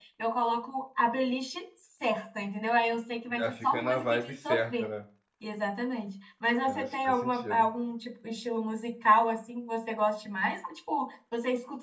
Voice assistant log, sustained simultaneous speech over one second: present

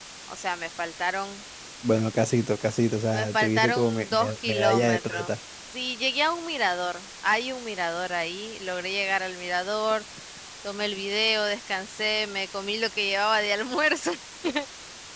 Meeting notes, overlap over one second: present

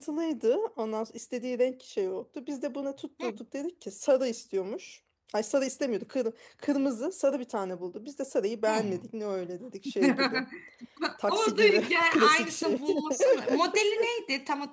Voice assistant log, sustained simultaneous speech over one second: present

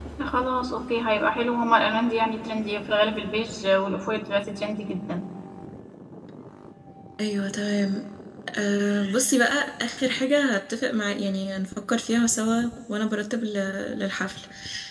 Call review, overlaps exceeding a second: none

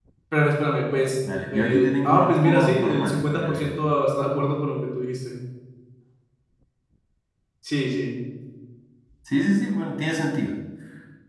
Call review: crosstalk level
present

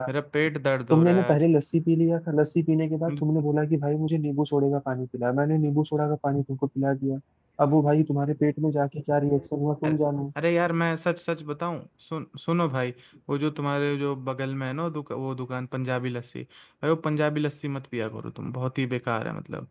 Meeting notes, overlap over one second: none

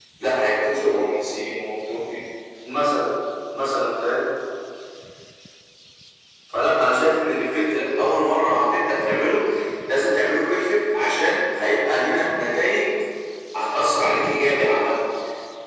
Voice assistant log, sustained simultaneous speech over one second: none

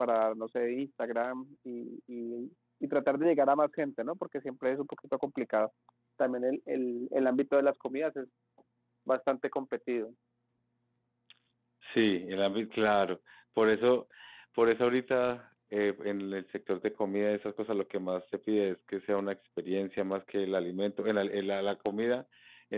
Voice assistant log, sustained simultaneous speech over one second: none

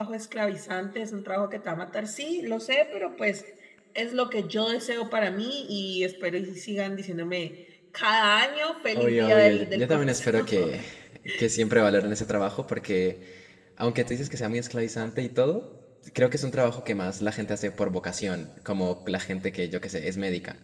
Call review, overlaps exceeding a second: present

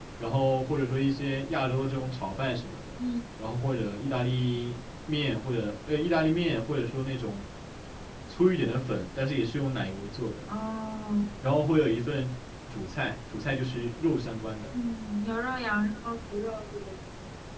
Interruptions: none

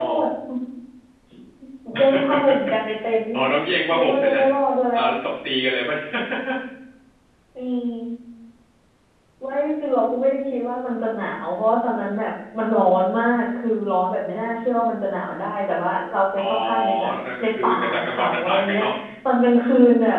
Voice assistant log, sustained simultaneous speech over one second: present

